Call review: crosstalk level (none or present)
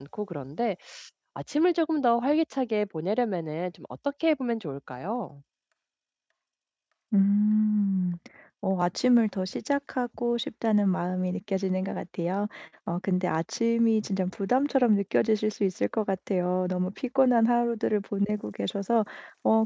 none